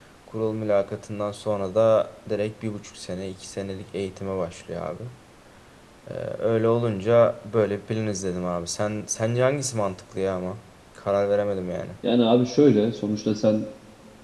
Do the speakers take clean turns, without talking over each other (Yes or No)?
Yes